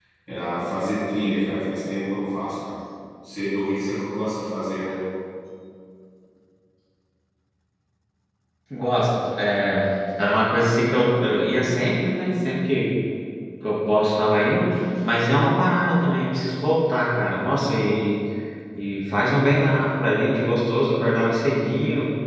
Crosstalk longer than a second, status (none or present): none